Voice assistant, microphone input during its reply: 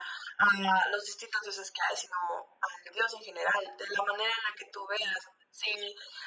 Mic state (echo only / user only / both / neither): echo only